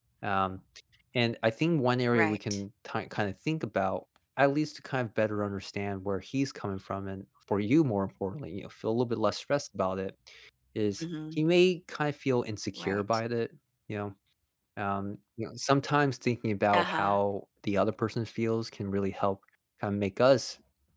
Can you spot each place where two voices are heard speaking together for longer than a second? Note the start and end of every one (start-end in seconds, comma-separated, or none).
none